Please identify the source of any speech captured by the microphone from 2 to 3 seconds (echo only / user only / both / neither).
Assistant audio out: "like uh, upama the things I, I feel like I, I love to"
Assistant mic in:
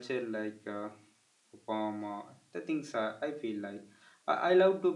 echo only